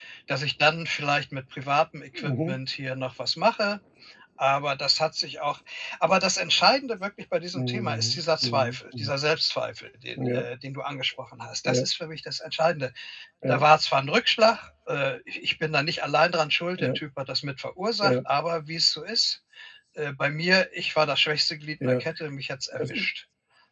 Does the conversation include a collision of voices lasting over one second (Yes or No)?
Yes